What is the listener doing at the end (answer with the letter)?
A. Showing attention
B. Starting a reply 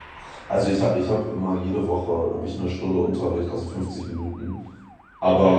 A